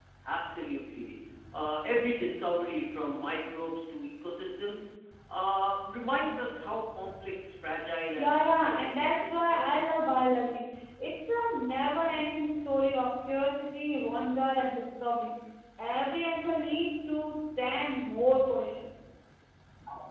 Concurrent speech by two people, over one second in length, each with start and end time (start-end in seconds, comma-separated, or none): 8.2-10.0